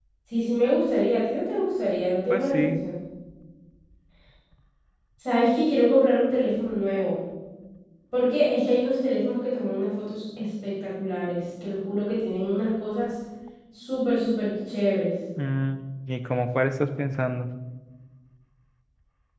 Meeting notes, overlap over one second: none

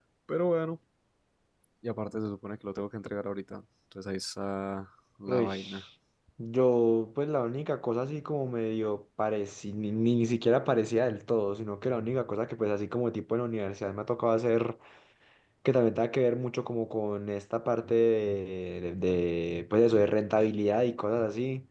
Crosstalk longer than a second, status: none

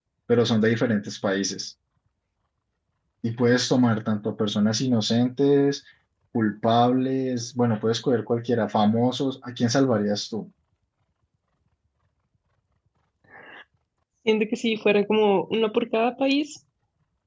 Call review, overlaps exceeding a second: none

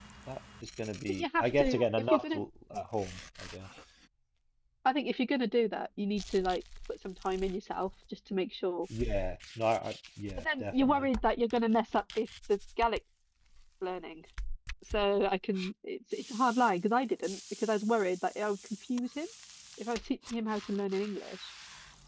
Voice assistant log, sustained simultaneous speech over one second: present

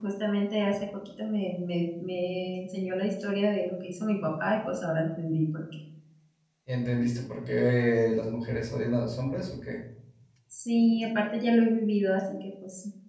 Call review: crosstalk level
none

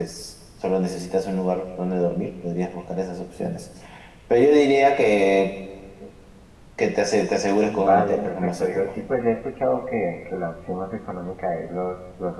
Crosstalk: present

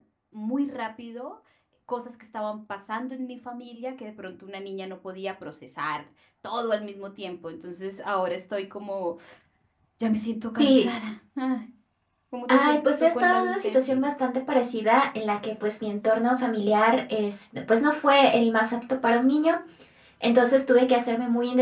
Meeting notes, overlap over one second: present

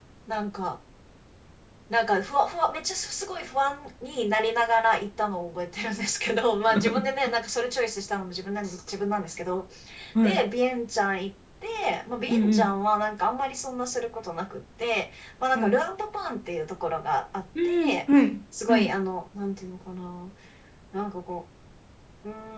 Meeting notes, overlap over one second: none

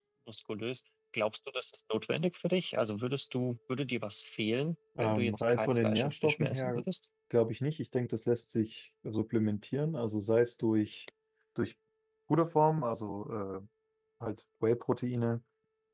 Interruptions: present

